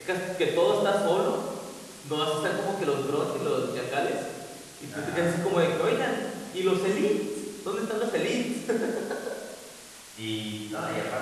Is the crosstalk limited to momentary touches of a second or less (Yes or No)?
Yes